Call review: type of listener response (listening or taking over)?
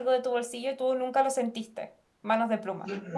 taking over